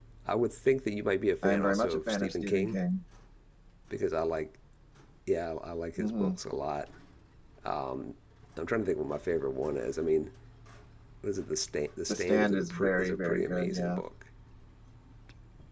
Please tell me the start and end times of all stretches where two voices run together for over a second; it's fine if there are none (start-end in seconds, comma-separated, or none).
1.4-2.8, 12.1-14.0